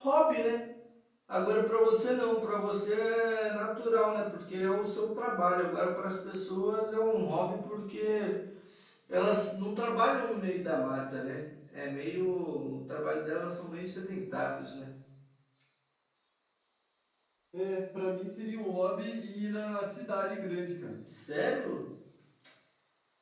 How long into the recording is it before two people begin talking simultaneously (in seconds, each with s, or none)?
none